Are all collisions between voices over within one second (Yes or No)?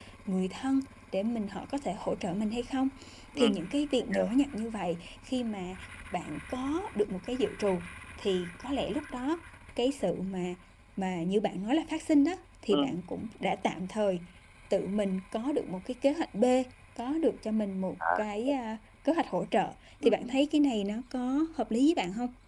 Yes